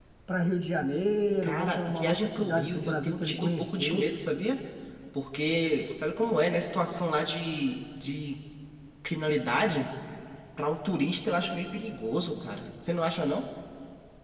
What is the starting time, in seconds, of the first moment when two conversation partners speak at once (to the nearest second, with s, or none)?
1 s